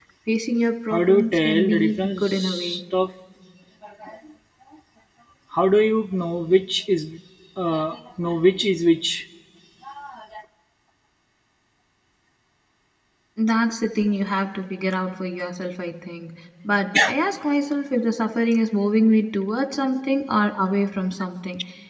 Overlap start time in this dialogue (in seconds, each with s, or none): 0.9 s